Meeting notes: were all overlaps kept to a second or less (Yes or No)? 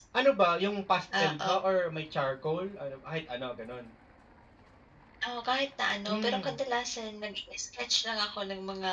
Yes